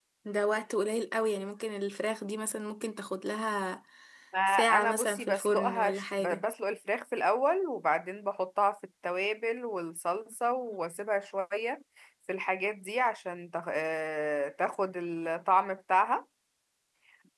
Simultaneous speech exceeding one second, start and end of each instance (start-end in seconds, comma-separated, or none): 4.5-6.4